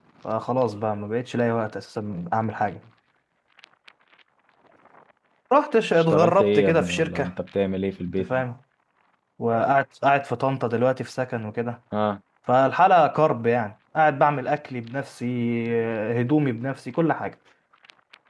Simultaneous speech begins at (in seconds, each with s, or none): 6.0 s